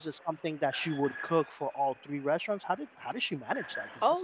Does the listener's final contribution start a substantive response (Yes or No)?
Yes